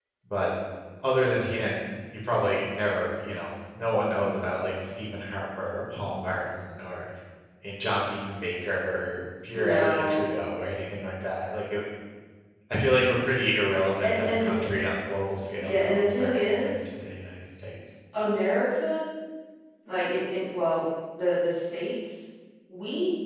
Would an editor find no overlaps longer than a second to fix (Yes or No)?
No